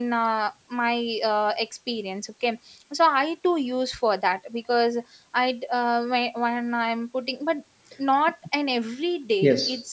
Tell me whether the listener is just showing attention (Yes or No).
Yes